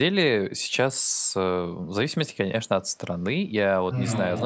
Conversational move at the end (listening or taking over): listening